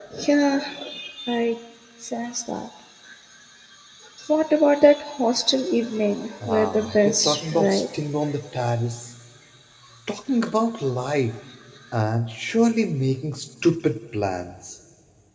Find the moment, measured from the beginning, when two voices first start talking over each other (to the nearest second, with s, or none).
6 s